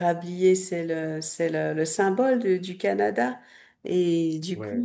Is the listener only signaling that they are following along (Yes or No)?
Yes